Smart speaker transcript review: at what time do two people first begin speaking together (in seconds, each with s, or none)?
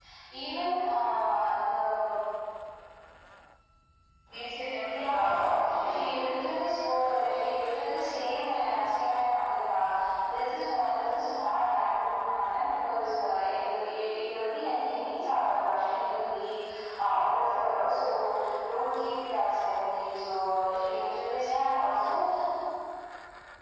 4.9 s